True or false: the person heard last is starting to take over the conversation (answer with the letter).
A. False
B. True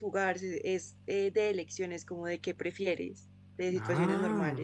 B